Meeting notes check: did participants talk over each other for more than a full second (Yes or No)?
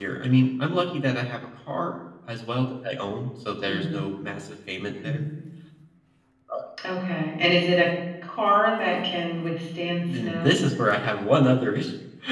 No